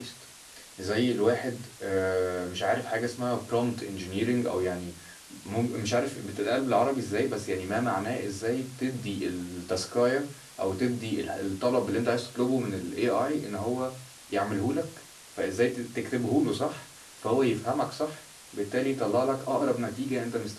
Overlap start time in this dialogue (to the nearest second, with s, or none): none